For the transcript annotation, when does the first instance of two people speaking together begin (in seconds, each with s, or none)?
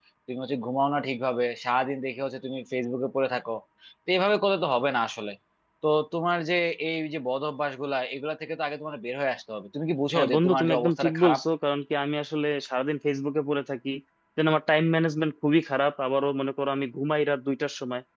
10.2 s